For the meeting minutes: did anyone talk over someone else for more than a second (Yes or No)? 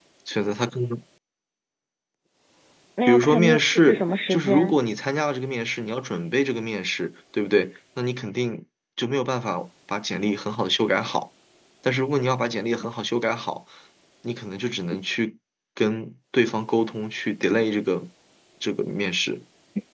Yes